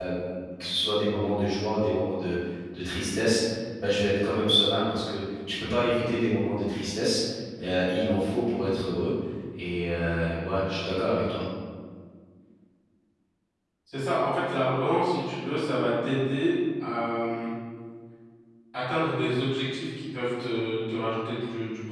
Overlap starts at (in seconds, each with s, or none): none